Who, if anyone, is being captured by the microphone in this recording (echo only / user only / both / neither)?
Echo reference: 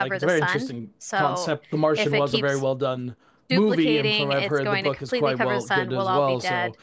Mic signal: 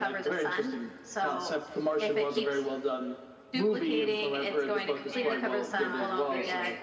both